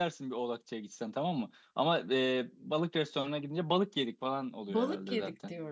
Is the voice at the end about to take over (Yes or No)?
Yes